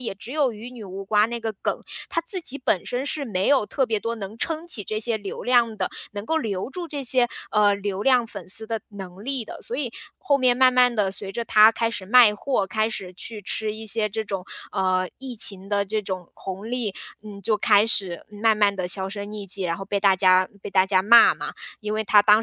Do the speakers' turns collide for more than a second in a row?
No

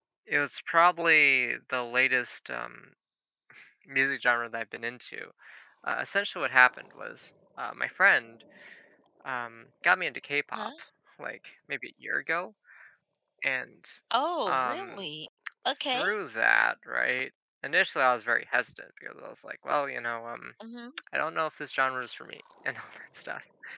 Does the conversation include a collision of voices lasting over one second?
No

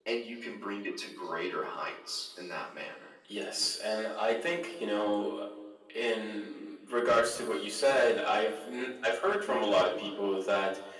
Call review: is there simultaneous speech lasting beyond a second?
No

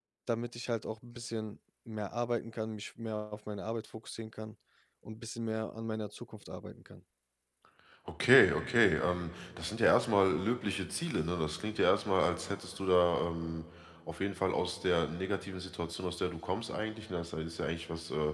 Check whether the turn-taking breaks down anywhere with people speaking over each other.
No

